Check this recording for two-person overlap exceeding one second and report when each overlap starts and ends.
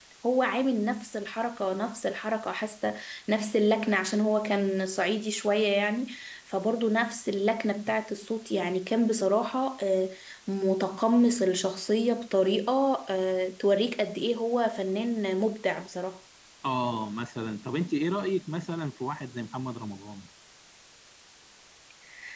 none

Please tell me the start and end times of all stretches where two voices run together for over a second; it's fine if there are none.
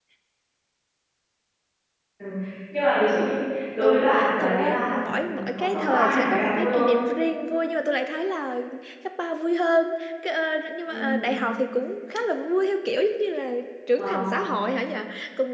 3.8-6.9

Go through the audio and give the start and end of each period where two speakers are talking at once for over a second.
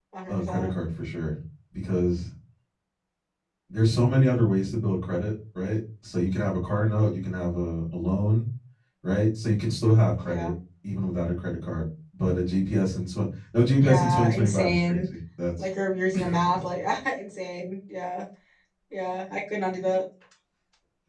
13.8-15.1

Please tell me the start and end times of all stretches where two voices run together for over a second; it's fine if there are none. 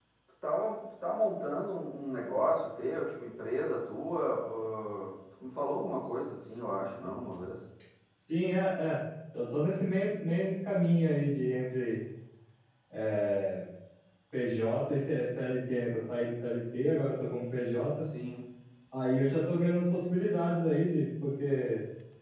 none

